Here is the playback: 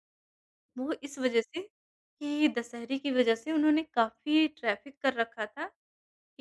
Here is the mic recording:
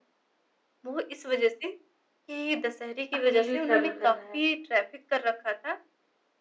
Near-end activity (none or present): present